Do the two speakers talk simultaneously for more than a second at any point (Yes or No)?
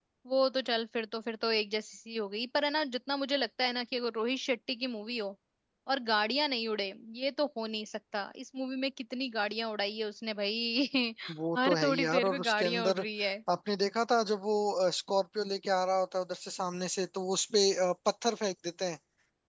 Yes